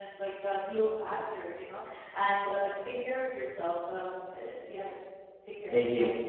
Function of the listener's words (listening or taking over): taking over